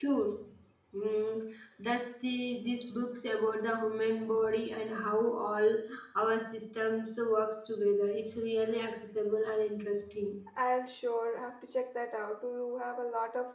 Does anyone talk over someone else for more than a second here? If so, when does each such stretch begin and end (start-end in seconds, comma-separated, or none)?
none